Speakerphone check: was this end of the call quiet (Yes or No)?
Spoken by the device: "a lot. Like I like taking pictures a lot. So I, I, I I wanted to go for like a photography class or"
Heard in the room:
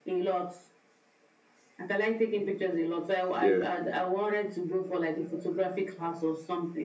No